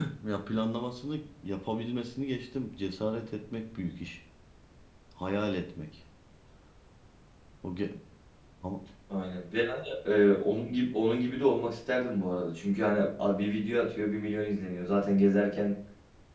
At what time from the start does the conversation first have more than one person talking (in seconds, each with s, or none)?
none